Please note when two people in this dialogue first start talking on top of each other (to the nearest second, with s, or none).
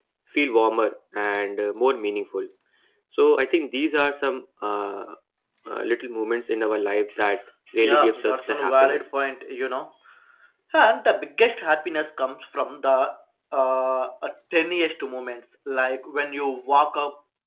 8 s